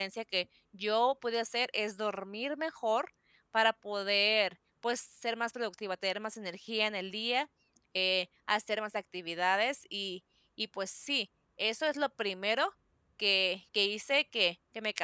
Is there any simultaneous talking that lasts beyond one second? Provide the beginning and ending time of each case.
none

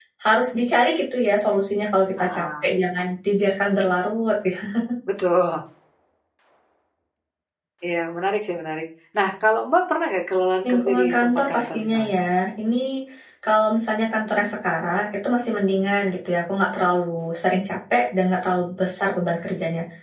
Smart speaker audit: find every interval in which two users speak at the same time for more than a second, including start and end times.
10.7-12.1

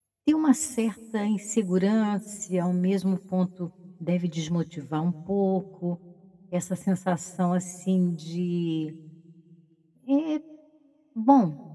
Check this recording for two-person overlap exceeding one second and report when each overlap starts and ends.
none

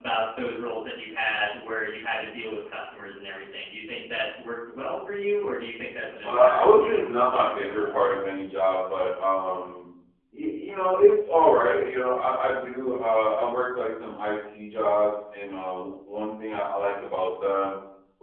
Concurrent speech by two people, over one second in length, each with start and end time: 6.2-8.1

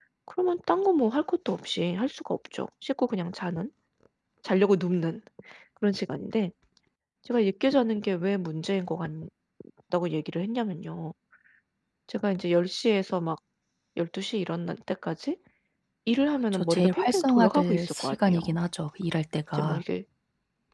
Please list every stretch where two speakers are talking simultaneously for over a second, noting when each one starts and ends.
16.5-18.6

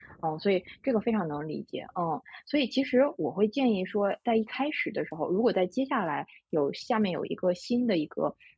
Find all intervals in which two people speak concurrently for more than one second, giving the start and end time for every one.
none

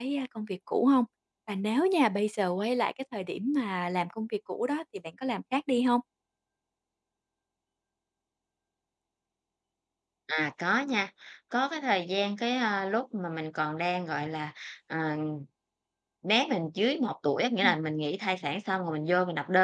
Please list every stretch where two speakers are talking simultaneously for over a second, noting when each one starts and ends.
none

